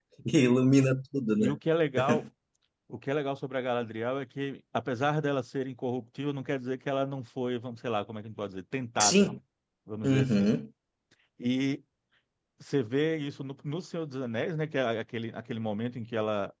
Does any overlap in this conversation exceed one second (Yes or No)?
No